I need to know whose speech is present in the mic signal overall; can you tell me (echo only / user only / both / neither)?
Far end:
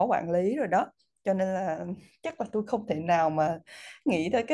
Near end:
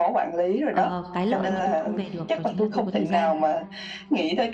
both